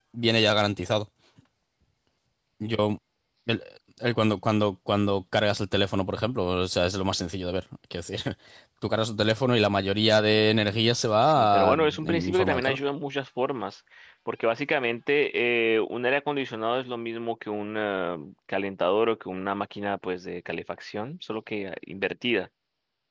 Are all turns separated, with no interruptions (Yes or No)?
No